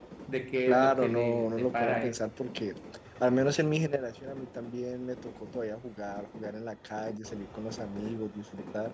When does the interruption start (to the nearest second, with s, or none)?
1 s